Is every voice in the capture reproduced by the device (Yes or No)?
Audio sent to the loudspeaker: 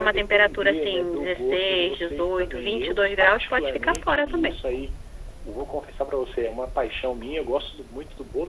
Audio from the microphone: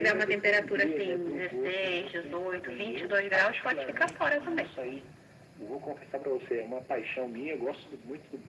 Yes